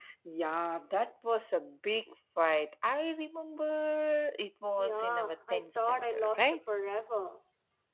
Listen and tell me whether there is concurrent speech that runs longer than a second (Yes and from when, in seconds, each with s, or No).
Yes, from 4.8 s